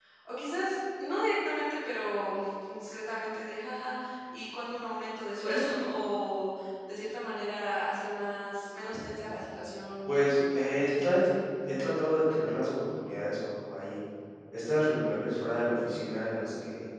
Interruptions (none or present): present